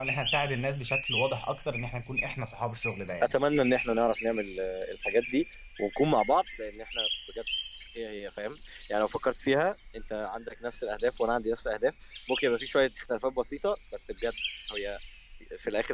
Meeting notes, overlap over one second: none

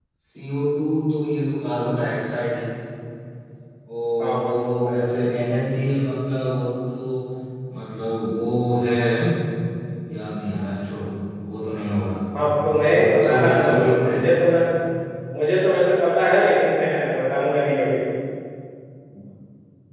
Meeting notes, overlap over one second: present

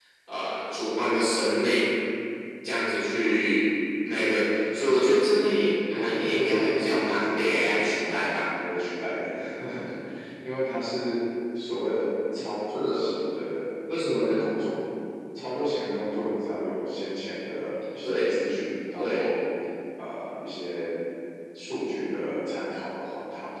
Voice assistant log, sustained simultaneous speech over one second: present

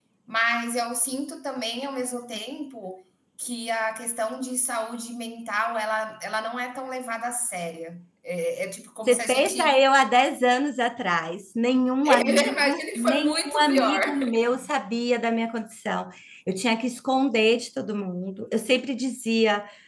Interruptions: present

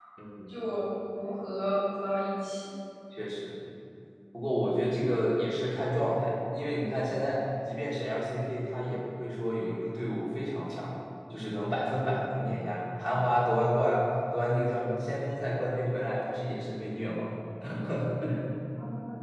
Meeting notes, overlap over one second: none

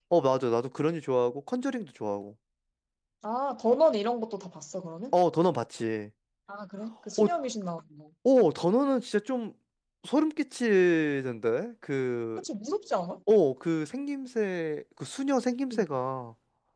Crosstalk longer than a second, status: none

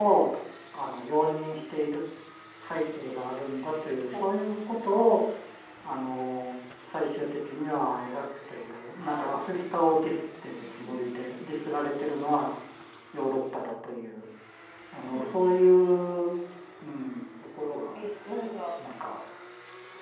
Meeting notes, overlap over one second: none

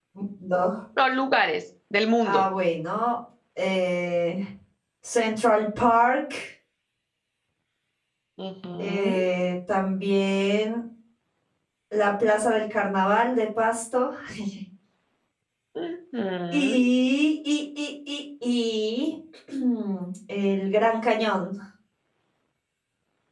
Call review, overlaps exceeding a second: none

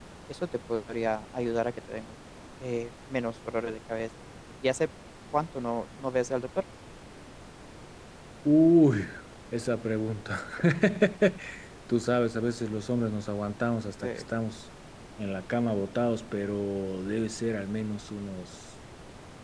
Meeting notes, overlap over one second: none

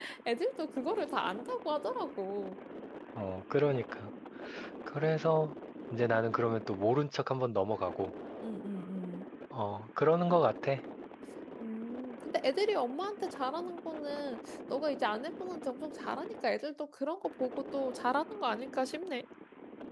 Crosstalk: none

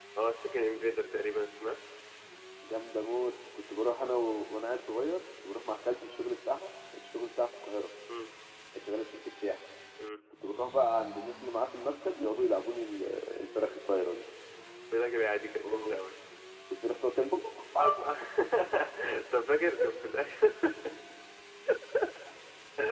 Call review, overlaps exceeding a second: none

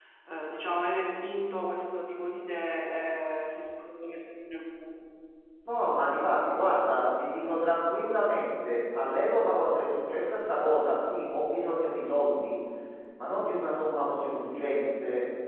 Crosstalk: none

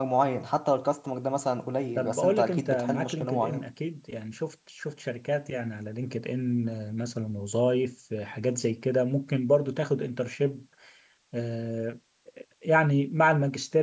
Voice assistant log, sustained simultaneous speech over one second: present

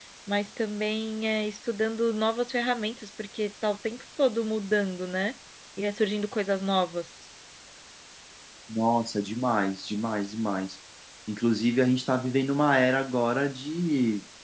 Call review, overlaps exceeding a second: none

